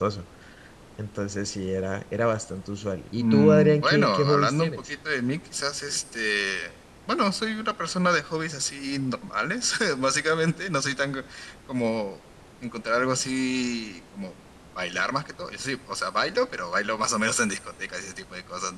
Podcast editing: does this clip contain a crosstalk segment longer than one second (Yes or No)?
Yes